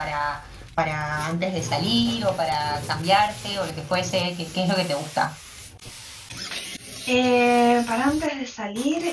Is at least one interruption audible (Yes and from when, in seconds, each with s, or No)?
No